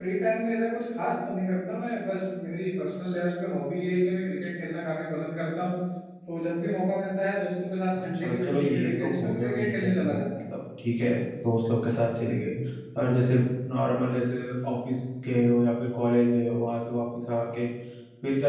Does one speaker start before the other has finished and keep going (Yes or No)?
Yes